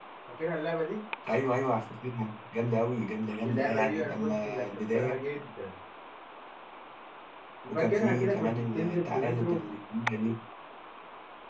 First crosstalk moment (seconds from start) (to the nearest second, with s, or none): 3 s